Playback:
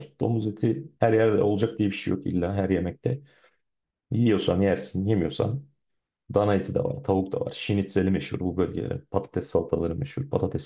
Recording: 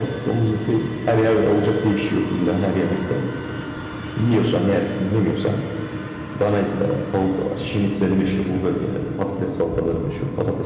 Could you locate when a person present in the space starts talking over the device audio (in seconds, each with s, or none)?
none